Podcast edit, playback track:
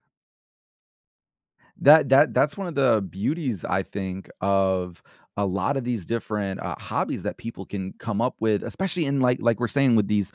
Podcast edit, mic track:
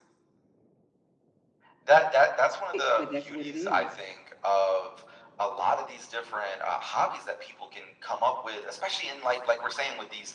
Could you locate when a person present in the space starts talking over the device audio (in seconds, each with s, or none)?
2.7 s